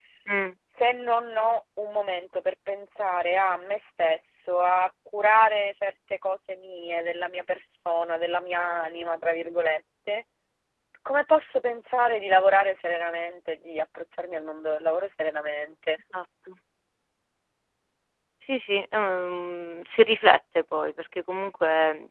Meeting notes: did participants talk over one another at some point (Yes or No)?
No